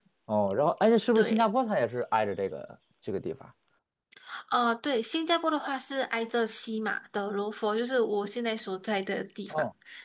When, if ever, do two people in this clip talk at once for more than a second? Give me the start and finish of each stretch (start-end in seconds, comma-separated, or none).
none